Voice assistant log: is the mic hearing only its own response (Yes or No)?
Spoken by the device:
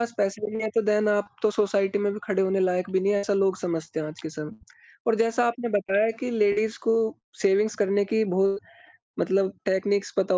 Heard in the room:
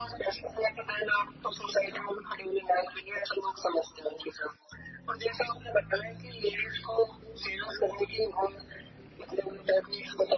Yes